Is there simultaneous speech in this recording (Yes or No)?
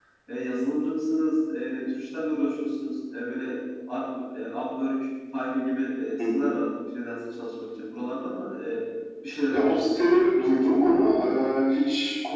Yes